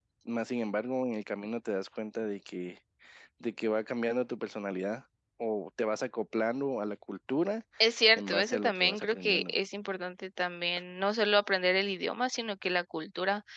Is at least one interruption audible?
Yes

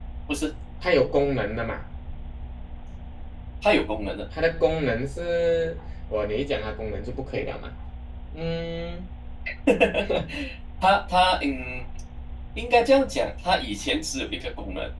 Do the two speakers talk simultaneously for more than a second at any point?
No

